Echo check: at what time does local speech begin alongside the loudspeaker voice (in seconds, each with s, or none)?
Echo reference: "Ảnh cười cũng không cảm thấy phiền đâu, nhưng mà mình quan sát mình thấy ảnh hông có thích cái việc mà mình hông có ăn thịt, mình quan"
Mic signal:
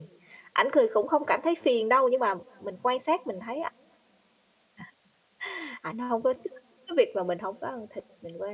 none